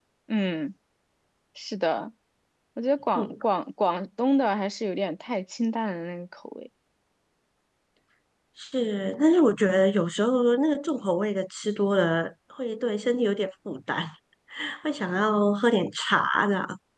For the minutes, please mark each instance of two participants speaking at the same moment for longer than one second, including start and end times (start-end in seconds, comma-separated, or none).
none